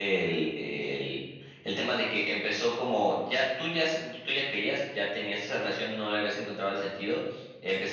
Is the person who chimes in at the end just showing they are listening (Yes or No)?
Yes